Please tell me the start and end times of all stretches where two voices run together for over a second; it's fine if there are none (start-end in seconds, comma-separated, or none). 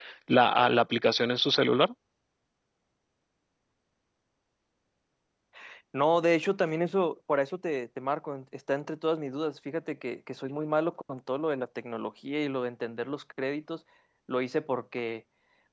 none